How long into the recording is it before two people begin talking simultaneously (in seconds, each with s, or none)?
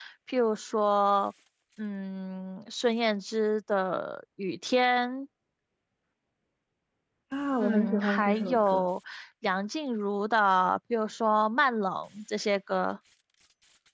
7.6 s